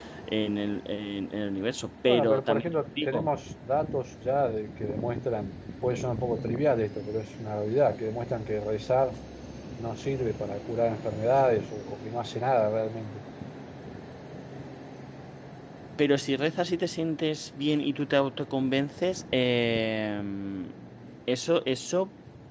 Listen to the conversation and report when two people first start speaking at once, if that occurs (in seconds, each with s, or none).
2.1 s